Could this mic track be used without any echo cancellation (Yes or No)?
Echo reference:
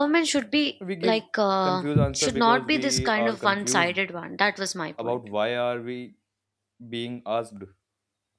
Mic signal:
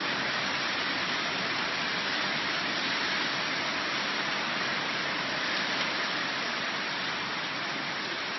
Yes